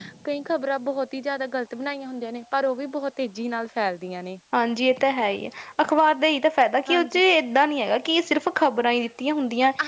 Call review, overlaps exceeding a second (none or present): none